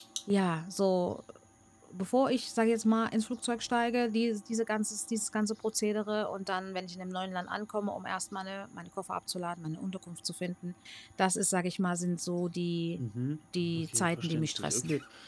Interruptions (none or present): present